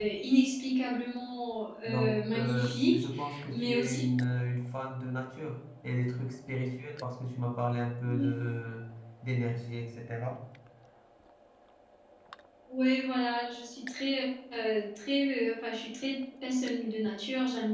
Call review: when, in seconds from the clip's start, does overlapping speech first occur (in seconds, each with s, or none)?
1.8 s